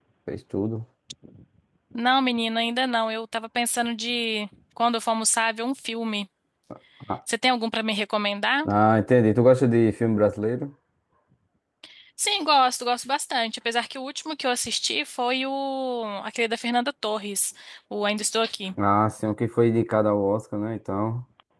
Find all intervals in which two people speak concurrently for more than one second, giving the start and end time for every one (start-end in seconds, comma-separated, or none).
none